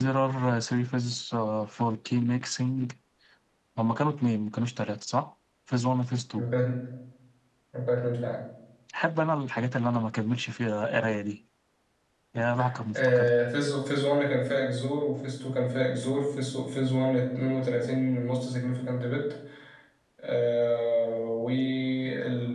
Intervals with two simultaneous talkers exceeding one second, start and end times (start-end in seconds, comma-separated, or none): none